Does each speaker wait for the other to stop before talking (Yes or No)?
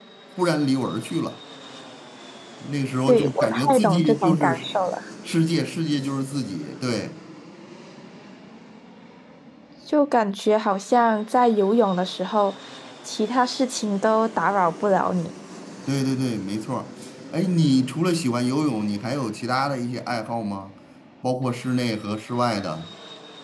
No